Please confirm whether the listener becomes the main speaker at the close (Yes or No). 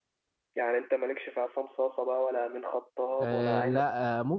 Yes